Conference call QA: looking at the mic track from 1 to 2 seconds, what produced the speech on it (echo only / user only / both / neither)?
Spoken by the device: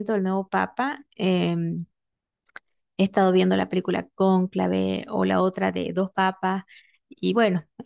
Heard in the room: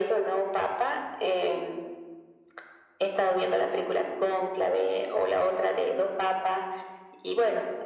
echo only